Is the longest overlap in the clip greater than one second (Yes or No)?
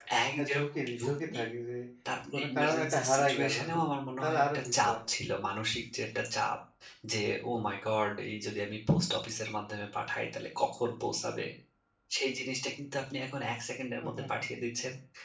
Yes